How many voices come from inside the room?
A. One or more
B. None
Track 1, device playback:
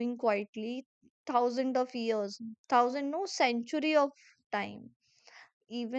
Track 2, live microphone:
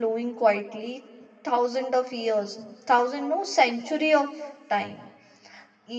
B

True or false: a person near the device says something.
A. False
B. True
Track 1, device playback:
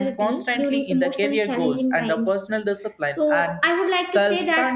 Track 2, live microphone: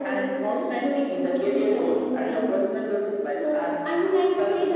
A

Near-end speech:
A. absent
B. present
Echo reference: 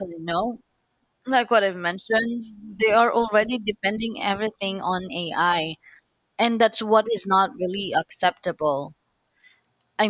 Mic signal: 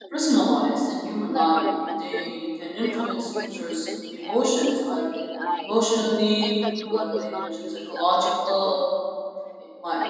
B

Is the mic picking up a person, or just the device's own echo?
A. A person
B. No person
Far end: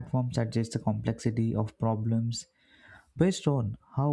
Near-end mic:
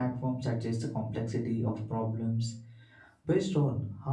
B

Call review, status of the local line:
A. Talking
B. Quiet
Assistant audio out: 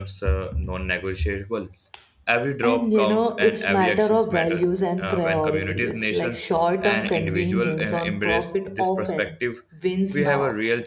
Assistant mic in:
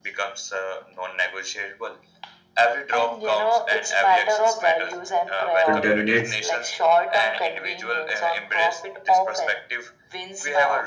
A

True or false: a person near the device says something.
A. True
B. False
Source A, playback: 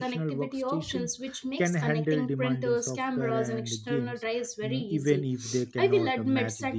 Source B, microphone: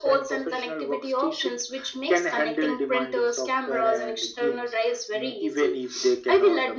B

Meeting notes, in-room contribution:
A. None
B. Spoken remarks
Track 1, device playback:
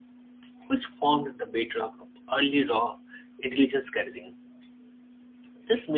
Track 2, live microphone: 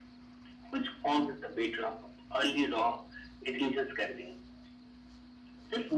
A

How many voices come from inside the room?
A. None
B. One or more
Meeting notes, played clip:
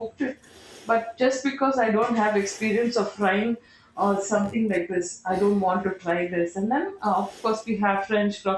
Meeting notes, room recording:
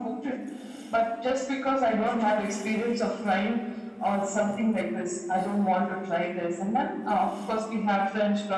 A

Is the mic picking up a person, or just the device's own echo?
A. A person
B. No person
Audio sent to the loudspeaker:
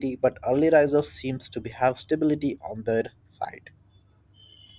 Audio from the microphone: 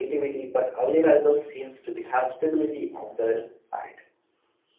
B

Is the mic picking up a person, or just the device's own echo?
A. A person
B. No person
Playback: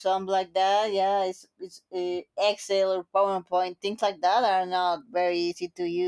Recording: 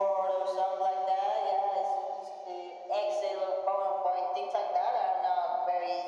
B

